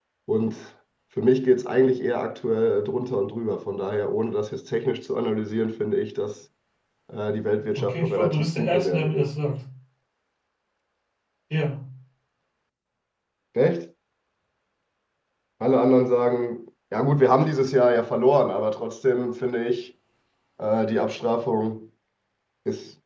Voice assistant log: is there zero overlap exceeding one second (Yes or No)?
No